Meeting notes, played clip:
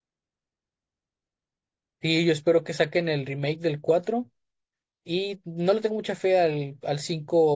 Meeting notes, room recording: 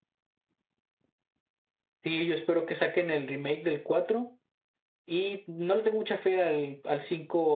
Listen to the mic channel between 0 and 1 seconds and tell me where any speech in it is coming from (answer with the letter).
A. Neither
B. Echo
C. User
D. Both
A